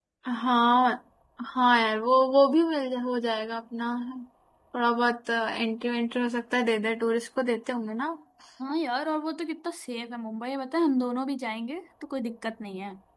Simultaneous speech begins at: none

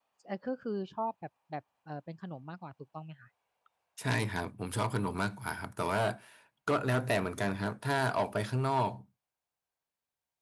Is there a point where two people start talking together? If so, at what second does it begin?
none

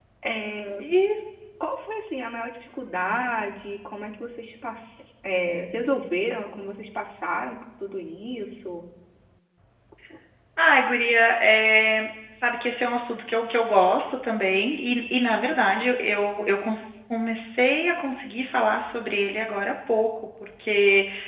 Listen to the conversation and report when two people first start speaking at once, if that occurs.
none

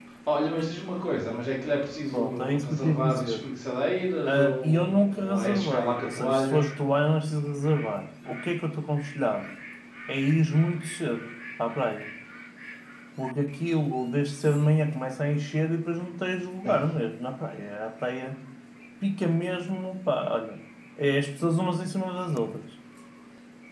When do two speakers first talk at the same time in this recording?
2.1 s

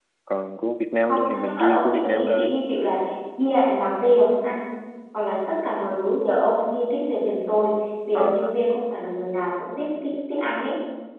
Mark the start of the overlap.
1.1 s

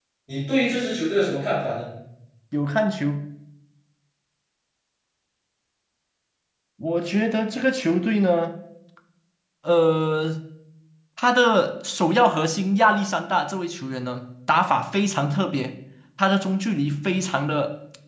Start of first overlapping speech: none

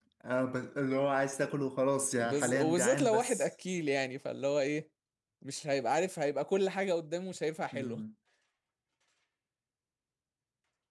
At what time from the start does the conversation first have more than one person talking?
2.2 s

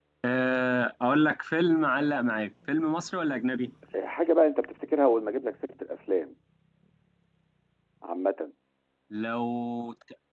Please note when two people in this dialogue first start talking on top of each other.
none

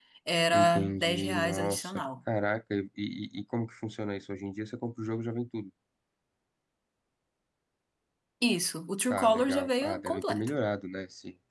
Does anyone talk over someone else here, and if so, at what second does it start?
0.5 s

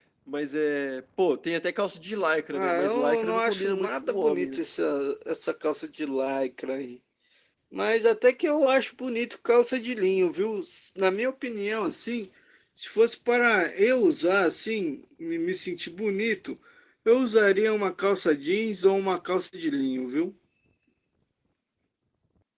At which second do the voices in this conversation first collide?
2.5 s

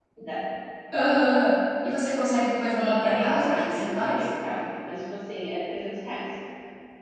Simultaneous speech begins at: 2.7 s

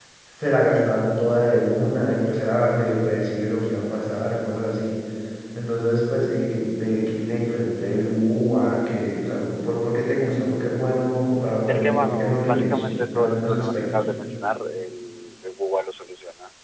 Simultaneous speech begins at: 11.7 s

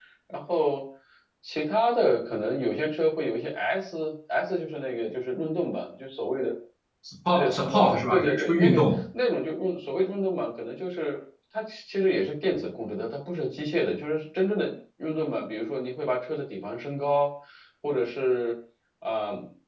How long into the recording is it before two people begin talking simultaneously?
7.3 s

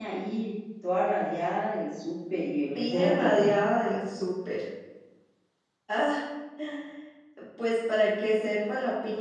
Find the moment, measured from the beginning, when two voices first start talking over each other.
2.7 s

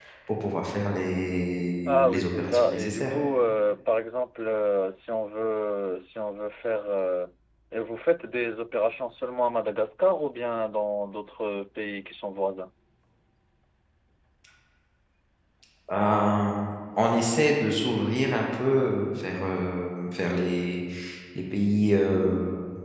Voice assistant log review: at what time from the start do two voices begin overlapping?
1.9 s

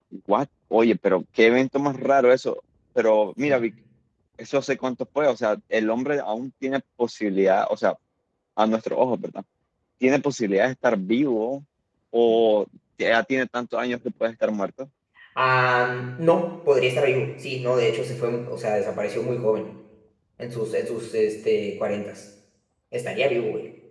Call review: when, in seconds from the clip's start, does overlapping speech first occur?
none

